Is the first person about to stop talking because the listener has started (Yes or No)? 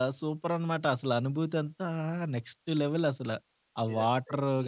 Yes